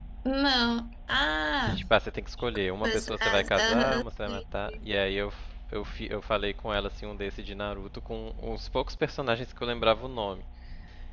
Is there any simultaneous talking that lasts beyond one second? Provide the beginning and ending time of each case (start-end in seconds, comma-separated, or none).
2.8-4.4